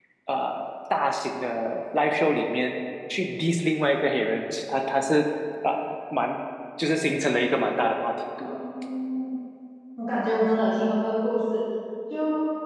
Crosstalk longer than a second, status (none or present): none